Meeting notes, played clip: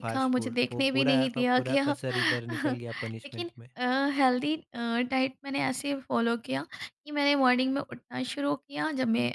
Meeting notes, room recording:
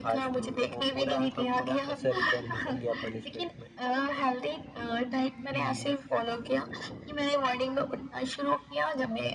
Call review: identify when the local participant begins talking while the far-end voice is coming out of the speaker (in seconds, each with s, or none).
5.5 s